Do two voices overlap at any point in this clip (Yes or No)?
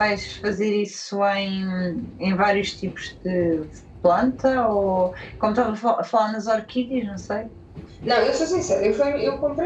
No